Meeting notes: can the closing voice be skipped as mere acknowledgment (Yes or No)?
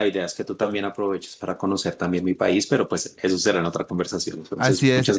No